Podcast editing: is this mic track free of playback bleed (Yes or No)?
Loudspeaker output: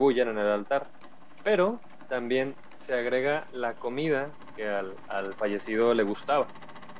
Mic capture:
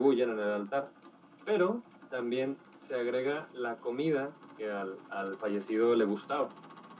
No